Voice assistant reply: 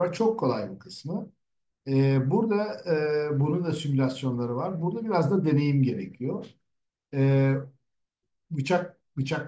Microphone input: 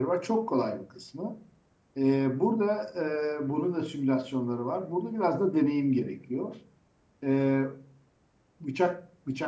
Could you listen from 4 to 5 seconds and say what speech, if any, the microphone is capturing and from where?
echo only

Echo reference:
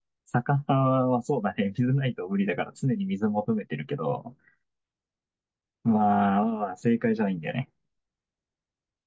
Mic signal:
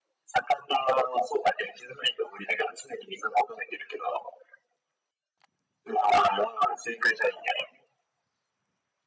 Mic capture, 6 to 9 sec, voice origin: echo only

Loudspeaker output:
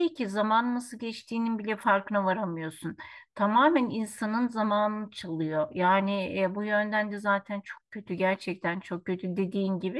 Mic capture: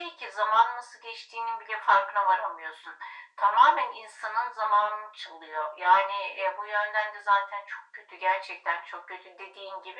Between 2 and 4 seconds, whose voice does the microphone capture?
echo only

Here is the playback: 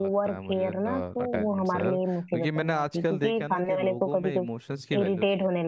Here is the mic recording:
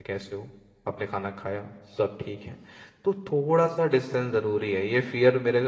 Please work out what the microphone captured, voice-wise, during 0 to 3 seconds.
user only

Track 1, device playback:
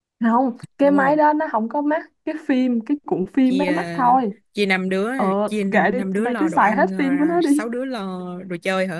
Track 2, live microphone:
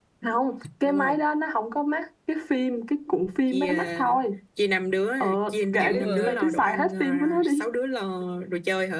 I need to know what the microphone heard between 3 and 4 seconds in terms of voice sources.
echo only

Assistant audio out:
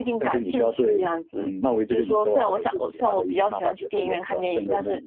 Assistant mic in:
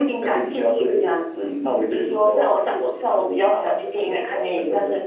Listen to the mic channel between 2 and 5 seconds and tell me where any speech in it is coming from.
echo only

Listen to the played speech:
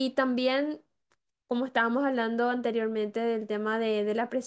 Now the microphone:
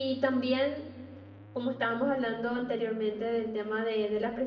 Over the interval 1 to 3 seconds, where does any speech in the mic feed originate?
echo only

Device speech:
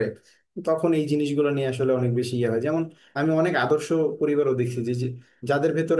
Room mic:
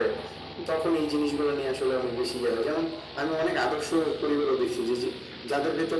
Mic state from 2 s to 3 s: echo only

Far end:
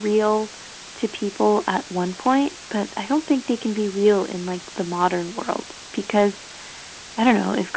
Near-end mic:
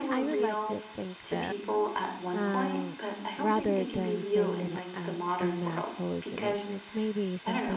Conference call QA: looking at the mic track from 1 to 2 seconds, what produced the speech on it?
both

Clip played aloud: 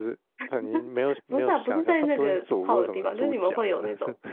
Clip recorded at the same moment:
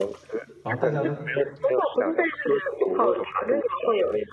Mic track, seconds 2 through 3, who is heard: echo only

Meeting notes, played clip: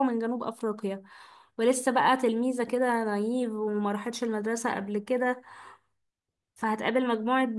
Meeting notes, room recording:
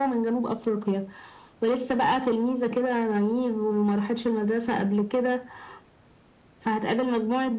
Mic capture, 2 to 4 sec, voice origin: echo only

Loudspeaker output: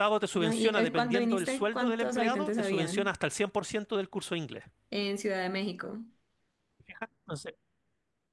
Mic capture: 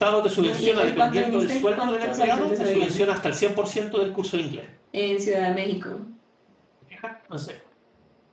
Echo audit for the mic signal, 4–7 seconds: echo only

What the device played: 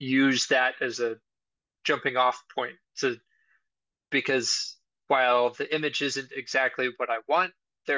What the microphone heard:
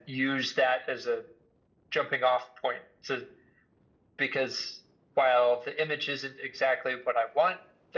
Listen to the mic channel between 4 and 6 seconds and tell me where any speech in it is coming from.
echo only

